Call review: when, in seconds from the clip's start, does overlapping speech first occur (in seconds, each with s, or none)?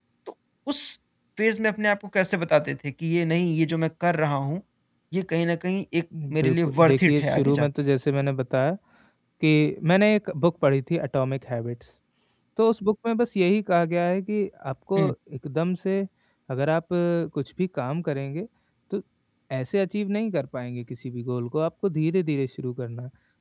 6.1 s